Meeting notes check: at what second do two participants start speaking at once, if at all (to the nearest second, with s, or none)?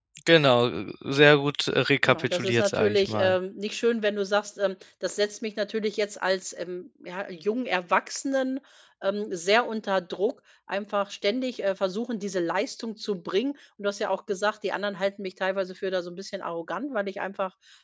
2 s